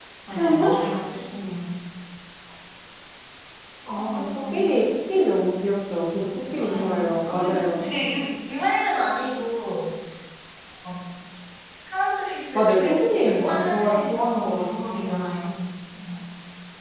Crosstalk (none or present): present